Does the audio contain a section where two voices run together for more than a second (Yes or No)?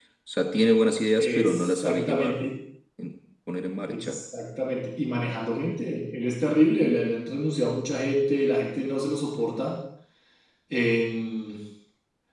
Yes